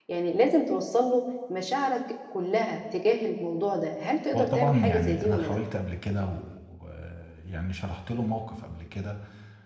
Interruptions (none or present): present